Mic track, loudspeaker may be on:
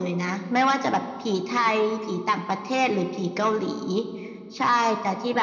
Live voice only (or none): none